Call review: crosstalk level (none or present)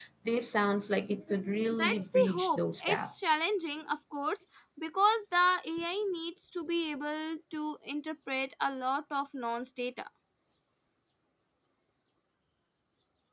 present